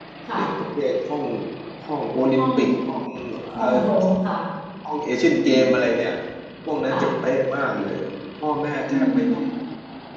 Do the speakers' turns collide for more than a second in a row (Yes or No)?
No